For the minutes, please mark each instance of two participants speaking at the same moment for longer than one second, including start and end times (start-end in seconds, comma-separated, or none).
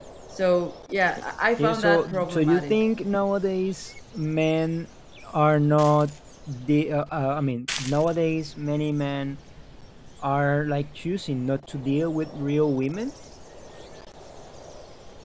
1.6-2.8